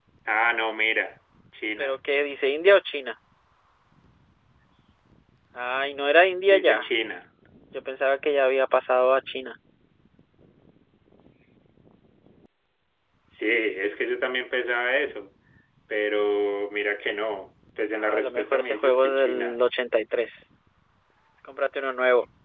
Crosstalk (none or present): present